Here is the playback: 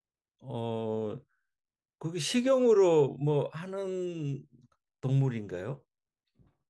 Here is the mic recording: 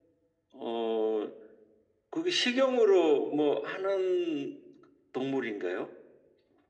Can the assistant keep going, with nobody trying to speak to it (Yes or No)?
Yes